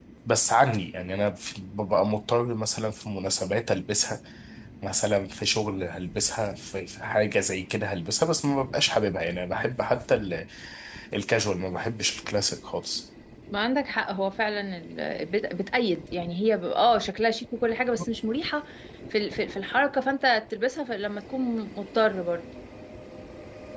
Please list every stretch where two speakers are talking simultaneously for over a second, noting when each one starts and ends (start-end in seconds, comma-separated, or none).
none